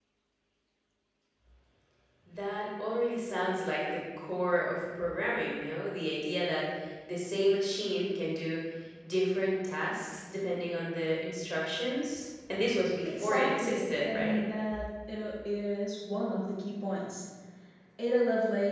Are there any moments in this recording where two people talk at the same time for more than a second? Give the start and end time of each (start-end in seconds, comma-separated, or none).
13.1-14.4